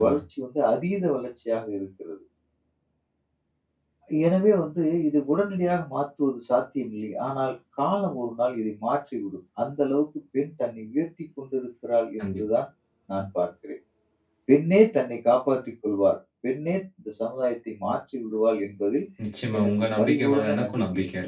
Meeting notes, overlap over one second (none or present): present